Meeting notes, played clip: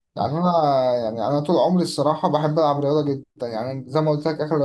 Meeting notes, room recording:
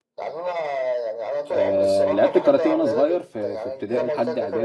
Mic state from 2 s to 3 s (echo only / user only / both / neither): both